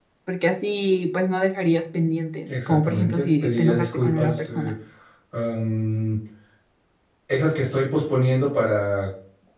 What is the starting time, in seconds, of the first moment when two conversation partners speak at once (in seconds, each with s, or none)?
2.5 s